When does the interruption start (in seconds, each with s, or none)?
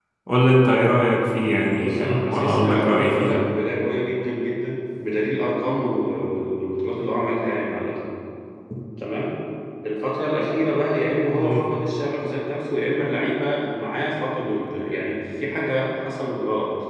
1.6 s